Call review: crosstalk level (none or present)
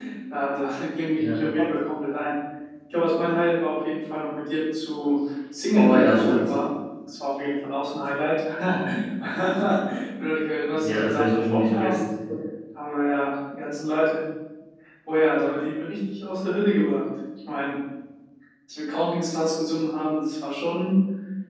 present